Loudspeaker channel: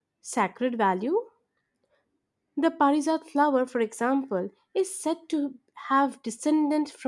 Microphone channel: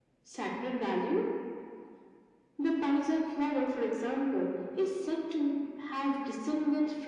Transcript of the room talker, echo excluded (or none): none